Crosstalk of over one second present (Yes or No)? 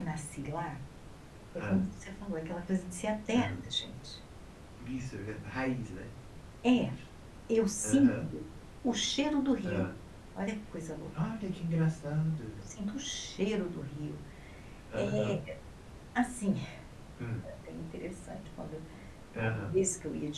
No